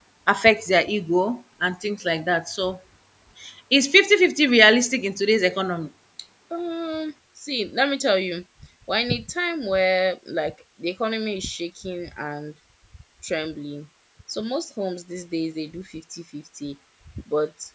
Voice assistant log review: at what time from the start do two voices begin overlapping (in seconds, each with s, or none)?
none